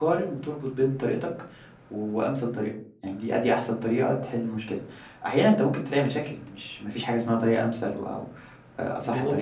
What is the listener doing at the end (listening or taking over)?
taking over